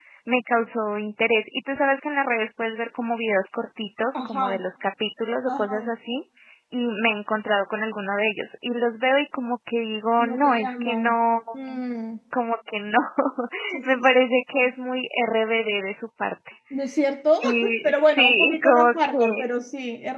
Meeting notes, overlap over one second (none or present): present